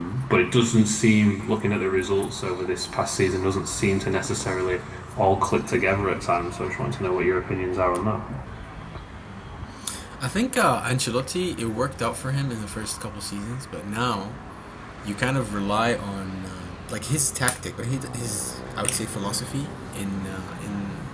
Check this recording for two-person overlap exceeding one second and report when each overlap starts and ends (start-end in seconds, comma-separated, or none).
none